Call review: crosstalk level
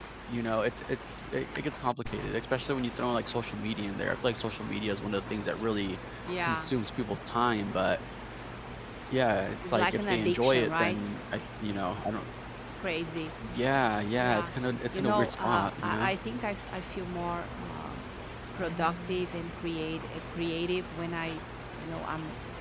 present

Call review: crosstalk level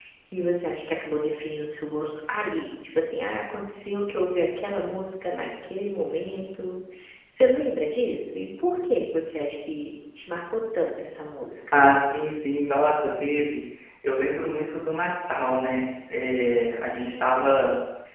none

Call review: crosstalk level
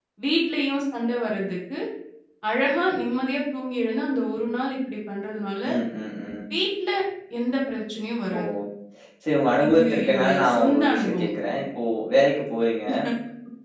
present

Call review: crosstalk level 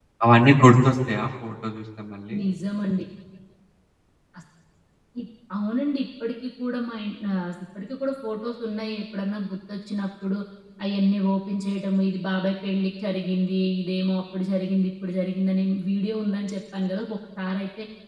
none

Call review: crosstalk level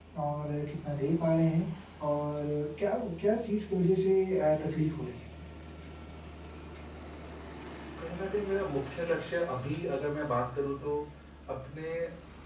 none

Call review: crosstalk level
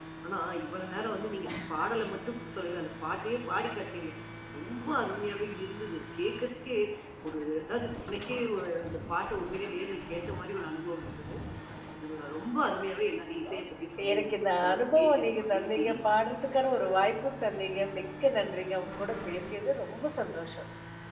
present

